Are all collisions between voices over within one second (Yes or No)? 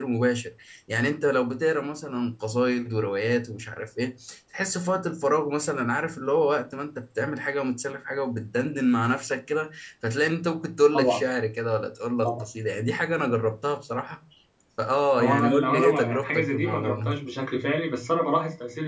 No